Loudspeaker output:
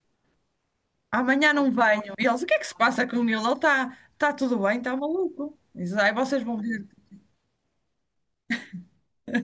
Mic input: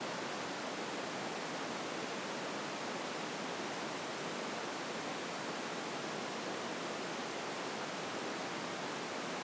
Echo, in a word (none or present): none